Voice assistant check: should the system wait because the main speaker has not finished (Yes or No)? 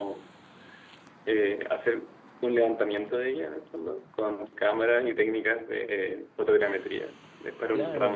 No